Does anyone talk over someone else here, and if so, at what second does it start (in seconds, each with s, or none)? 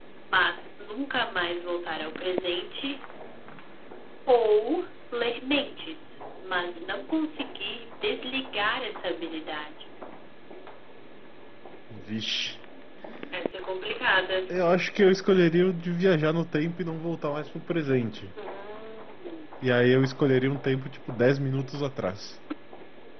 none